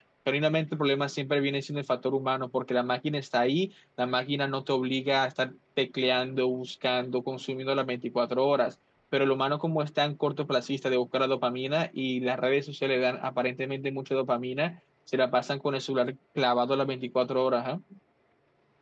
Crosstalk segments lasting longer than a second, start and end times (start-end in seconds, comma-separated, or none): none